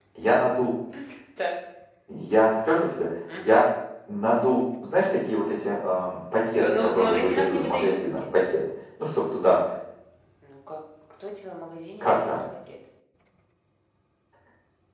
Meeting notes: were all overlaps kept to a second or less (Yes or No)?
No